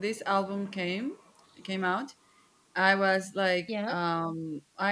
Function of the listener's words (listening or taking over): listening